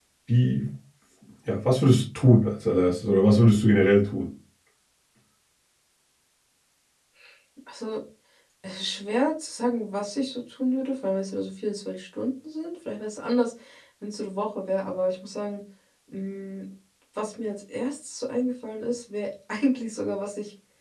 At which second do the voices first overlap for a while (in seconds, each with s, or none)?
none